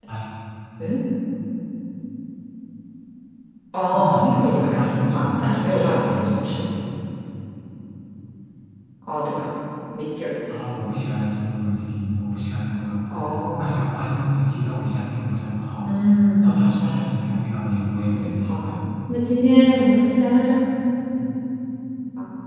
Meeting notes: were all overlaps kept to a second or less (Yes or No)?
No